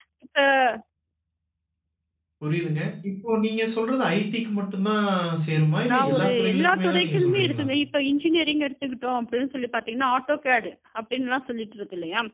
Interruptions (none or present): present